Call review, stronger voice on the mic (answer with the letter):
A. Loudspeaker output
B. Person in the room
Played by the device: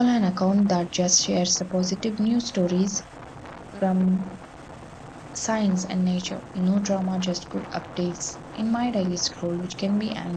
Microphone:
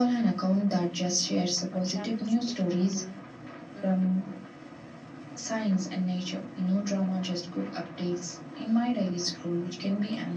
A